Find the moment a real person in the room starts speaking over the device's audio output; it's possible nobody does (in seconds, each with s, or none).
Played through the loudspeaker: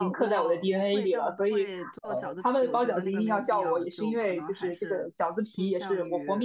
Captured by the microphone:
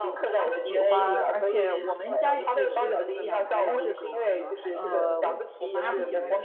0.4 s